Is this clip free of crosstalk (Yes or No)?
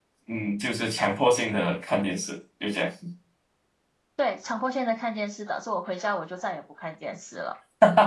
Yes